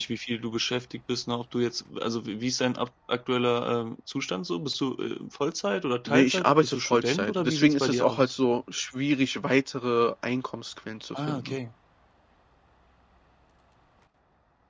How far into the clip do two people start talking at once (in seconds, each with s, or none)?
6.1 s